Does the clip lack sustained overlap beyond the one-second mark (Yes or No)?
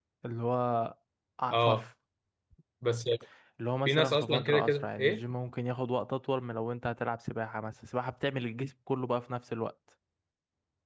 No